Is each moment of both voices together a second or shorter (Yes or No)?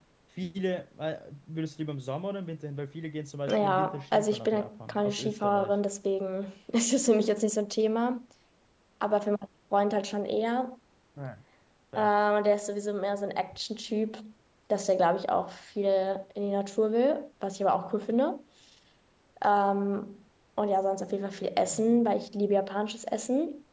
No